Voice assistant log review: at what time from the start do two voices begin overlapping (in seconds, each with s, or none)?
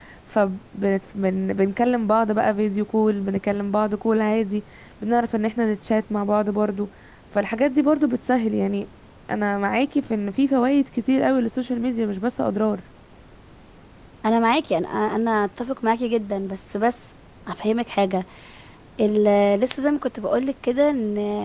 none